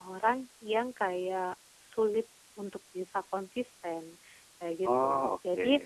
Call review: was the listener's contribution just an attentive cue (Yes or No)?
Yes